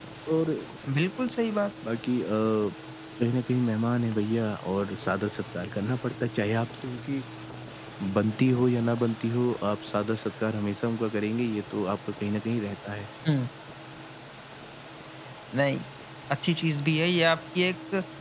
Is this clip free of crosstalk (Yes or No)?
Yes